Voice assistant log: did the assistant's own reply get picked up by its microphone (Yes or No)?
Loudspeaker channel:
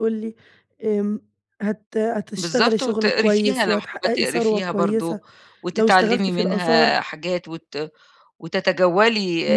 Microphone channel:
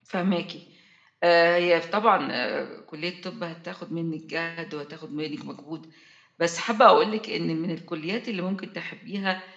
No